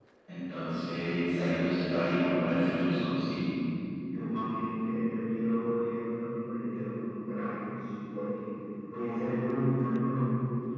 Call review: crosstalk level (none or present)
none